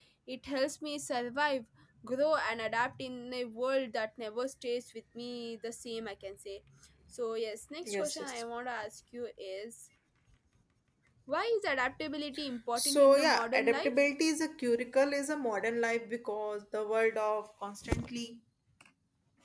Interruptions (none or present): present